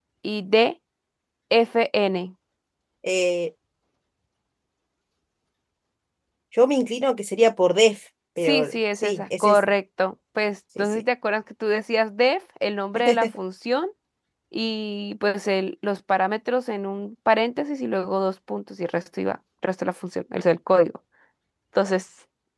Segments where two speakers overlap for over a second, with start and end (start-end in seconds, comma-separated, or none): 8.4-9.7